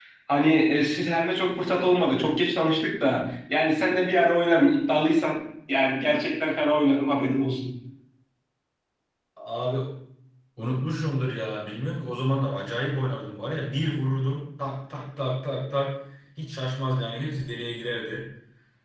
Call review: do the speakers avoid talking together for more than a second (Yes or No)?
Yes